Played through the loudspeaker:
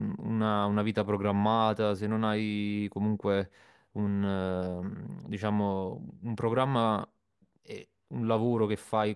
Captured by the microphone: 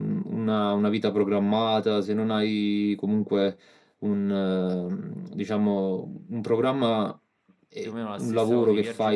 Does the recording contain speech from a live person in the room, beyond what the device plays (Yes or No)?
Yes